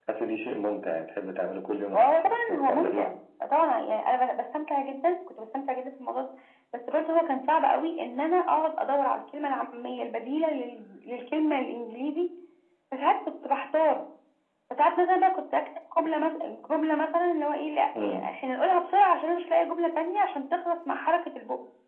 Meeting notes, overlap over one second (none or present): present